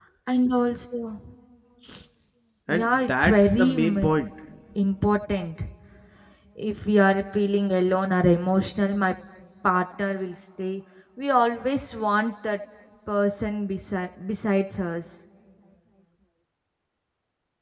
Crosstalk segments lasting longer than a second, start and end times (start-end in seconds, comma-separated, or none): 2.7-4.1